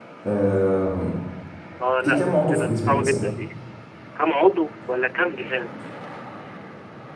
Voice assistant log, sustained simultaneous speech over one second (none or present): present